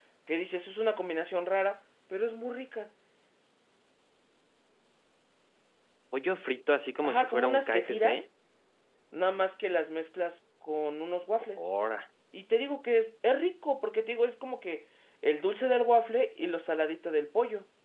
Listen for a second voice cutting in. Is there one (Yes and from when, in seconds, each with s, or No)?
Yes, from 7.0 s